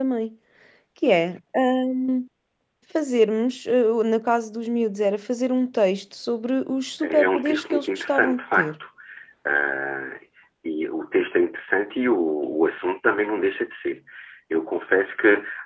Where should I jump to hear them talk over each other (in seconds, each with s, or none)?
7.0 s